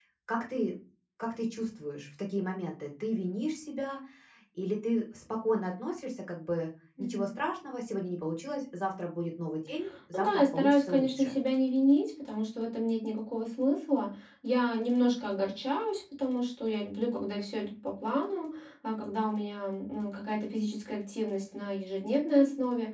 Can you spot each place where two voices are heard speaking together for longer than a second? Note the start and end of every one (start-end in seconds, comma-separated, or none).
10.1-11.4